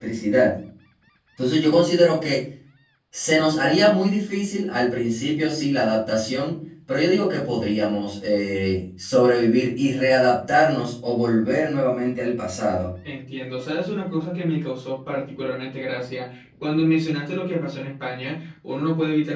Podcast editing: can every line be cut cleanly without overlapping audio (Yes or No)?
Yes